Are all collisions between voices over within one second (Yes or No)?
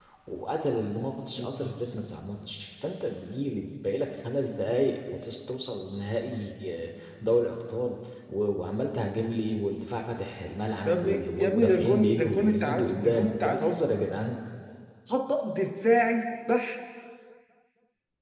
No